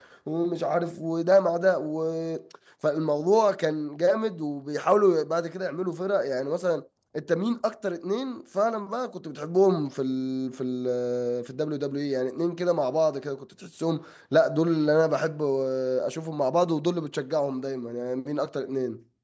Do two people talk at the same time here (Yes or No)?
No